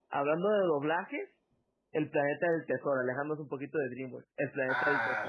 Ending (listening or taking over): taking over